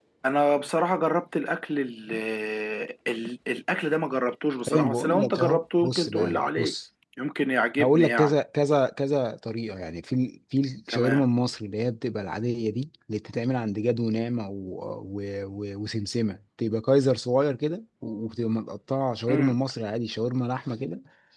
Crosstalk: present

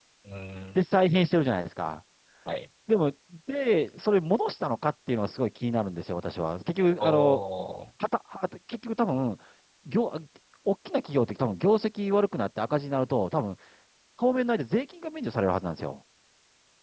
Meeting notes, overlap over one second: none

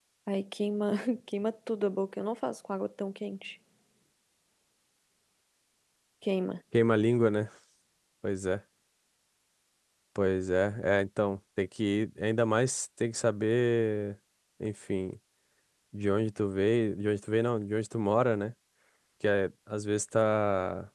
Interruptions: none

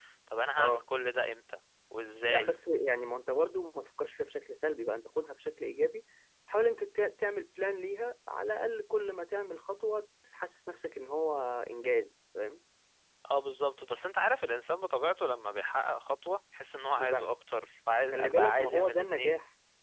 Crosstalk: present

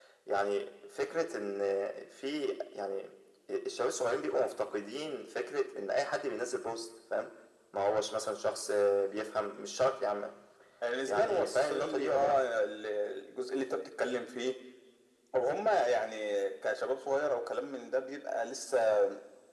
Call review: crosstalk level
present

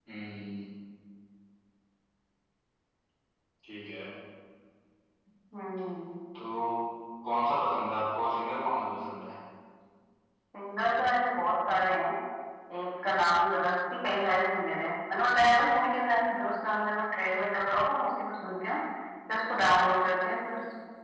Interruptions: none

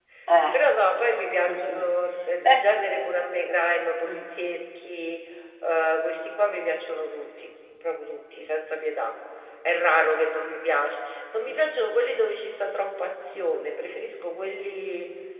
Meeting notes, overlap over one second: none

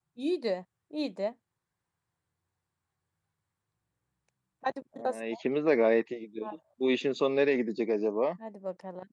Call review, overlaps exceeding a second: none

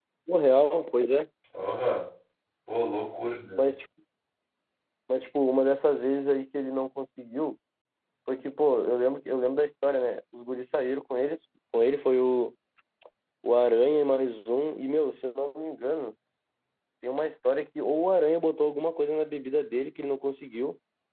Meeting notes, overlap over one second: none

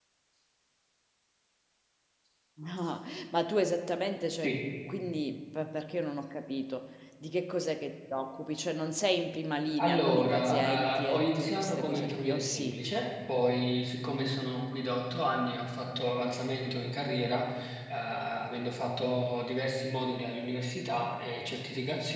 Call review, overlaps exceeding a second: present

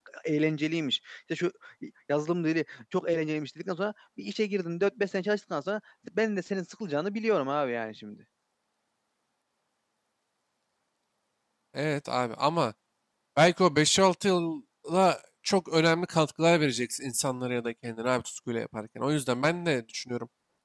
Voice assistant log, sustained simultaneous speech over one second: none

